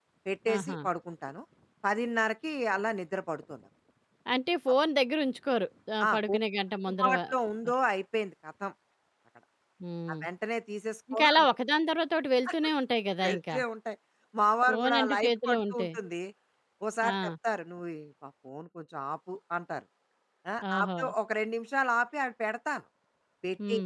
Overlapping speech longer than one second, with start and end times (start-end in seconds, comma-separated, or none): 14.7-15.9